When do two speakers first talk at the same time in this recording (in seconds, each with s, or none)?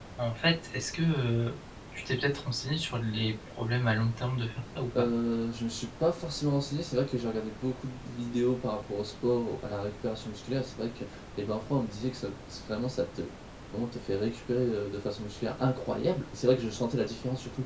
none